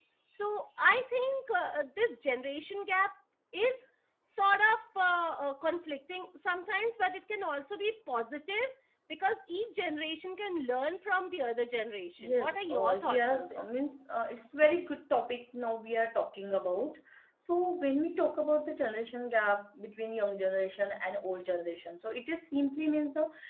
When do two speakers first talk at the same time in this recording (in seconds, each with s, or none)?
12.2 s